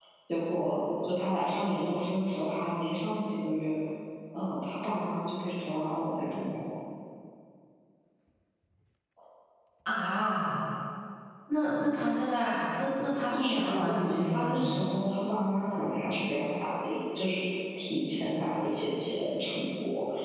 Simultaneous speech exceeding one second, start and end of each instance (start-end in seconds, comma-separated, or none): 13.3-14.7